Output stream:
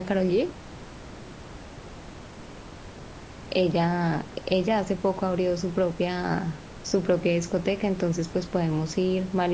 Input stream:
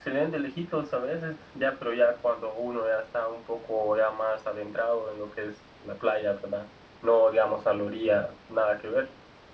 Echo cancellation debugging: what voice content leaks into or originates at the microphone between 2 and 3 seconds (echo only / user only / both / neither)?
user only